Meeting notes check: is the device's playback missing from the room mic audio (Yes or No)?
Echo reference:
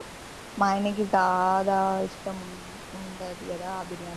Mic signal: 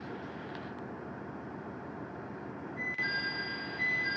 Yes